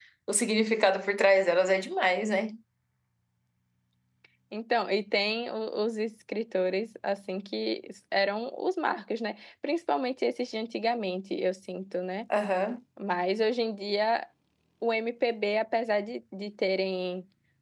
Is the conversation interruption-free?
Yes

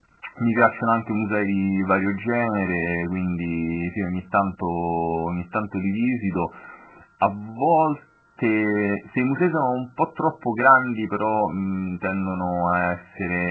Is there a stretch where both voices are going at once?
No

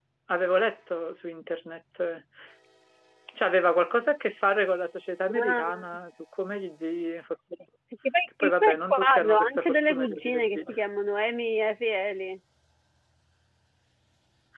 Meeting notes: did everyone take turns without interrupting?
No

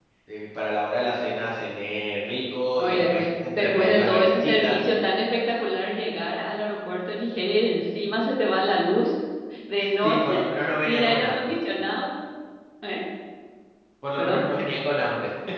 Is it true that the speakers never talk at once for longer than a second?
No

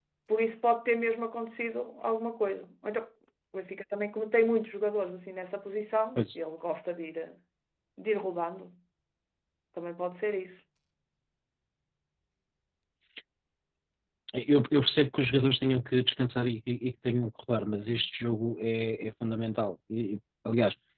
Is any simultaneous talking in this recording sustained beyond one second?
No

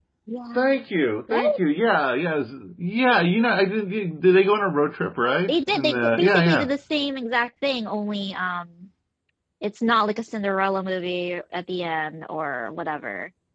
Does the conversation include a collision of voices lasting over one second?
Yes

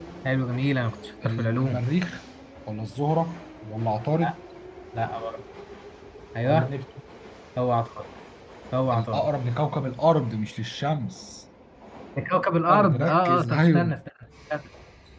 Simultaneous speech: Yes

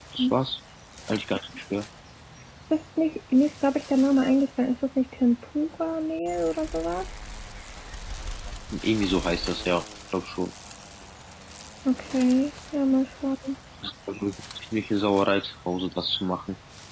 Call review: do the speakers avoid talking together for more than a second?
Yes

